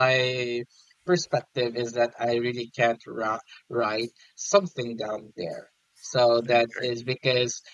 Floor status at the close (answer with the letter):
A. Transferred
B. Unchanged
B